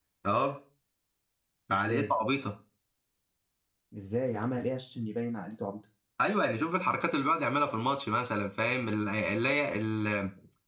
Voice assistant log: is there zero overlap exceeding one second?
Yes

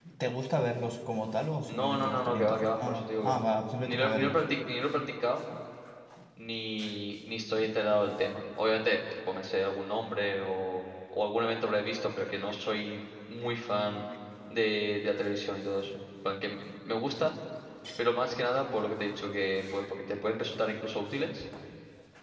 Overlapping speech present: Yes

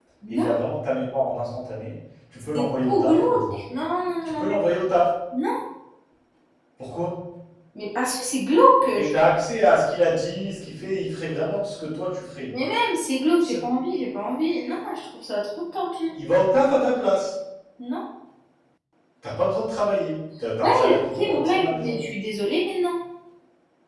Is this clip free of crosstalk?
No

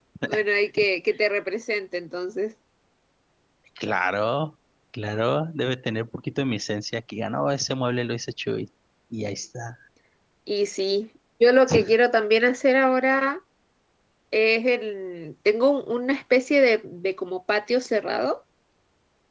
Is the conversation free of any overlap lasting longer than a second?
Yes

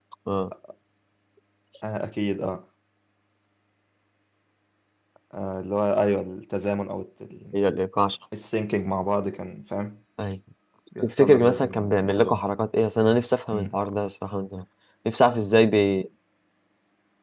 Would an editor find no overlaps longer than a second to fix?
No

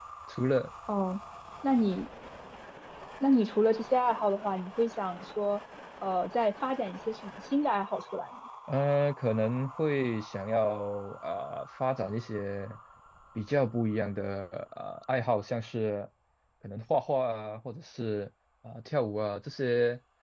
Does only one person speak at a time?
Yes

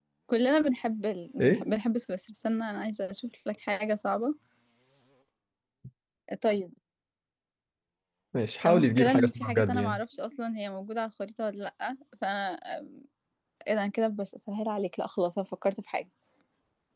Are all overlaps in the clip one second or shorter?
No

